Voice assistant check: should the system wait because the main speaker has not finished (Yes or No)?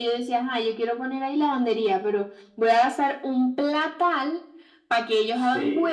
Yes